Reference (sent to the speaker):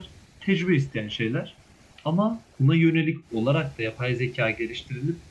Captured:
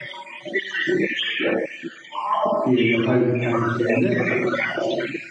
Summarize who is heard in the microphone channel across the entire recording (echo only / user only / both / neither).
both